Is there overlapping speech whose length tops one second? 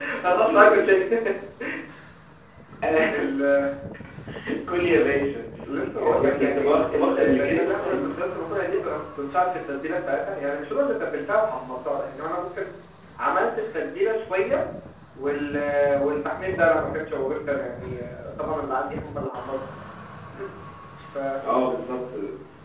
Yes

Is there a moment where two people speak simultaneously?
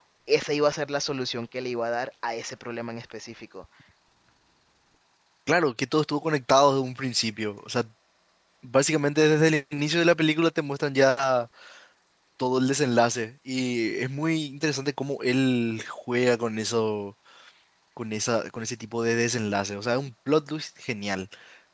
No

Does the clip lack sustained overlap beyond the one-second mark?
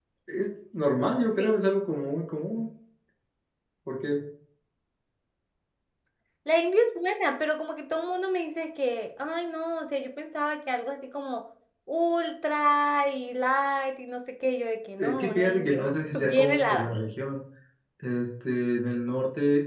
No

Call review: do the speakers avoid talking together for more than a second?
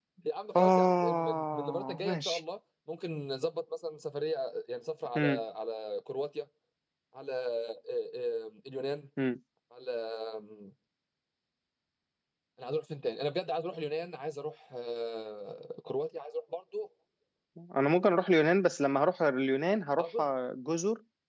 No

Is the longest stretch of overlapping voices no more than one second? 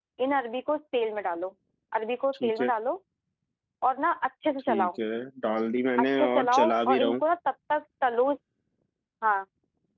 No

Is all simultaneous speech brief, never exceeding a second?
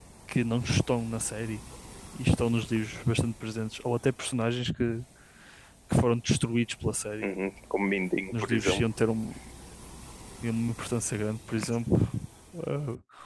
Yes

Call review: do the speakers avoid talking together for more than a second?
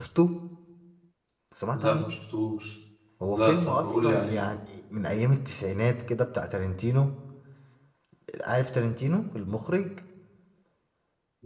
No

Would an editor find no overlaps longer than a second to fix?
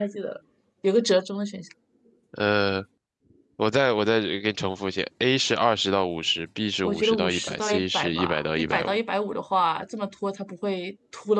No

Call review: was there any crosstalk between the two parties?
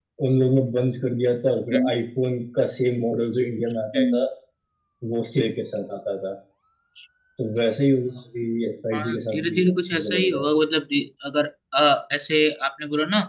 Yes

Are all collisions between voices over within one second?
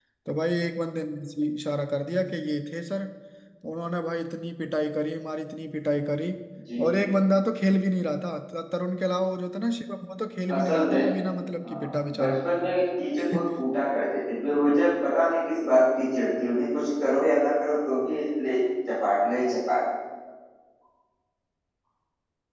Yes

